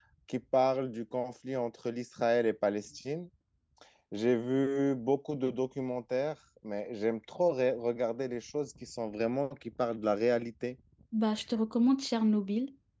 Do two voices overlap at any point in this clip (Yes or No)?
No